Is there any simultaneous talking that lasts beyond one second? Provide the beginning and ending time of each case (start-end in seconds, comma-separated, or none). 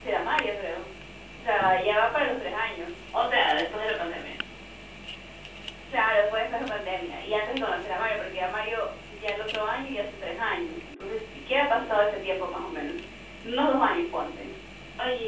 none